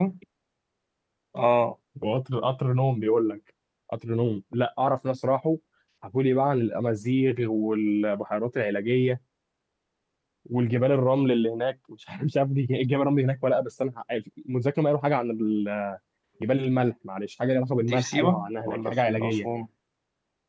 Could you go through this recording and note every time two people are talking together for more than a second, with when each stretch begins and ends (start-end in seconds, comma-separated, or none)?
17.8-19.5